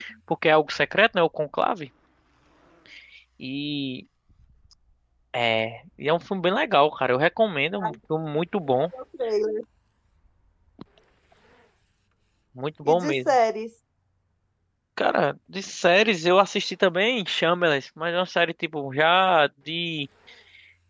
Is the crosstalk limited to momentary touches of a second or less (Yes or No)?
Yes